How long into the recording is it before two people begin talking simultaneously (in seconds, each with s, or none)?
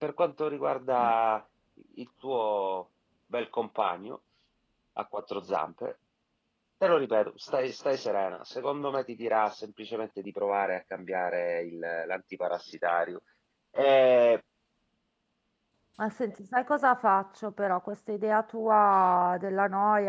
none